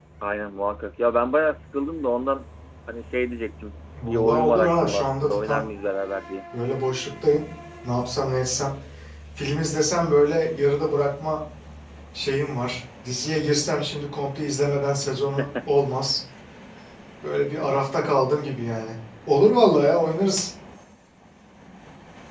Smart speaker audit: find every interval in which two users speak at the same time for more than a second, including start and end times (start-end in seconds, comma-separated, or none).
4.0-5.6